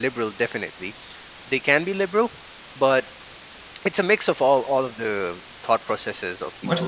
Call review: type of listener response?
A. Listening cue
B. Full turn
B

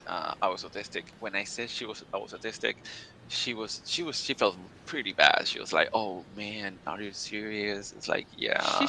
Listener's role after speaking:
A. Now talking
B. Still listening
A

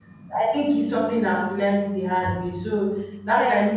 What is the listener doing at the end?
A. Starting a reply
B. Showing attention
B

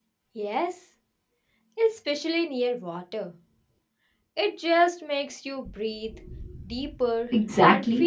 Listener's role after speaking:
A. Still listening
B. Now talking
B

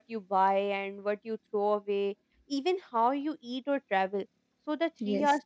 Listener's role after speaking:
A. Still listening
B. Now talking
A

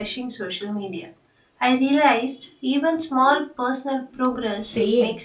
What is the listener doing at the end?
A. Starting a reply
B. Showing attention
A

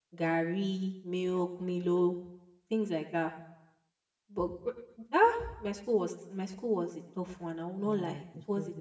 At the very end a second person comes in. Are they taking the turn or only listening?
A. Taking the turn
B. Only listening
A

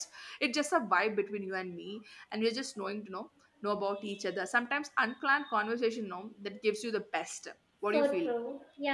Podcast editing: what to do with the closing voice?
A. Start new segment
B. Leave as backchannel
A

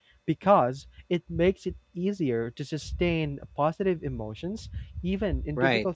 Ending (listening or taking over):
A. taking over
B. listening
A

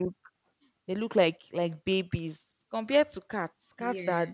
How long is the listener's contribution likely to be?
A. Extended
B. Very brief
B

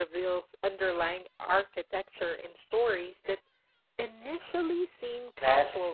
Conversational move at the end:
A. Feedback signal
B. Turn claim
B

